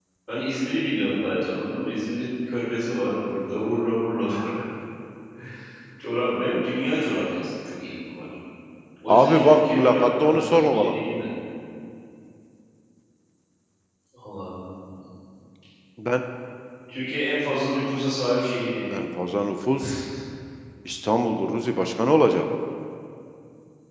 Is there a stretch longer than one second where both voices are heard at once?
Yes, from 9.1 s

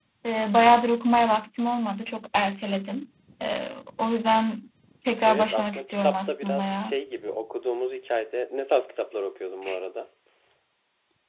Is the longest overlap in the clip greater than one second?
Yes, from 5.3 s

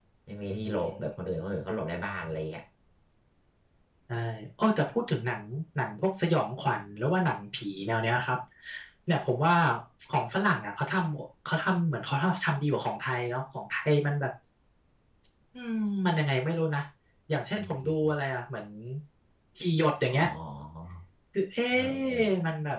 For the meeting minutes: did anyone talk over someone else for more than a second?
No

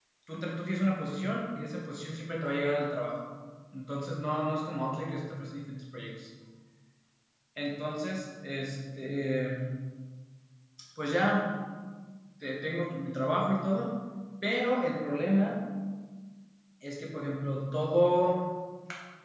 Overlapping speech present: No

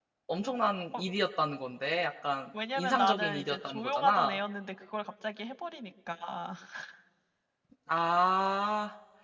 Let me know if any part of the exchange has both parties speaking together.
Yes, from 2.5 s

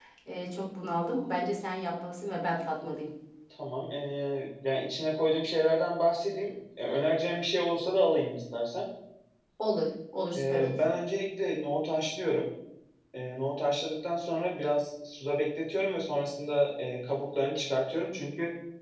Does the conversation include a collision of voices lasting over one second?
No

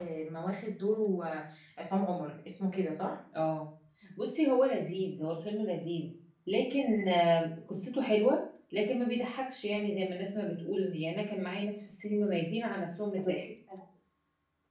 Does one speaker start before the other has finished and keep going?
No

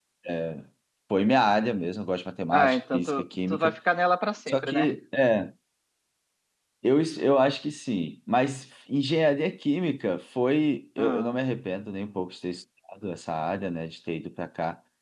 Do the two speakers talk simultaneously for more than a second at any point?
Yes, from 2.5 s

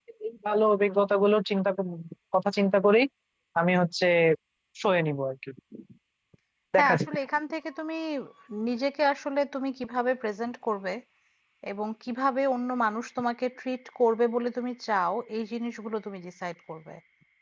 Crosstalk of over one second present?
No

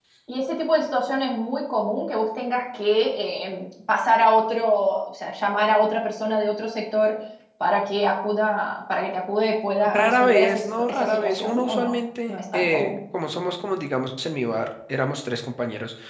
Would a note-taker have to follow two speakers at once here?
Yes, from 9.8 s

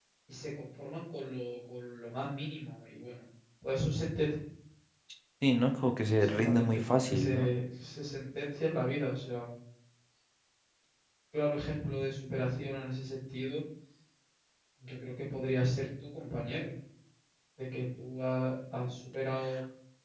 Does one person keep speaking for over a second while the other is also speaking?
Yes, from 6.2 s

